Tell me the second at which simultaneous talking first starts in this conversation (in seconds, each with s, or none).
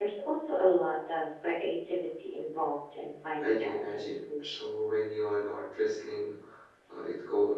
3.4 s